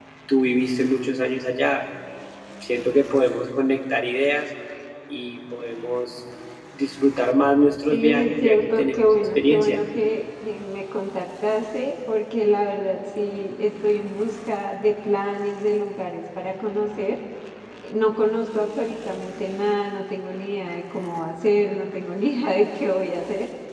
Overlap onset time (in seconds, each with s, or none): 7.9 s